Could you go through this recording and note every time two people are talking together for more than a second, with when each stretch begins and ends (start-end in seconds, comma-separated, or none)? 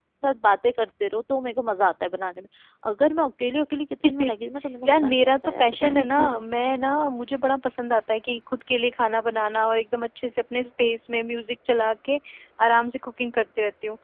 4.8-6.3